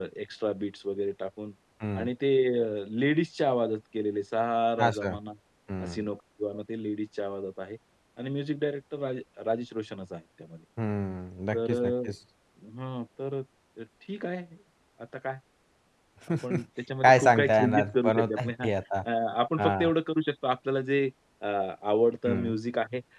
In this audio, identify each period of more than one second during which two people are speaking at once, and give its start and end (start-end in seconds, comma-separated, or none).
17.0-18.7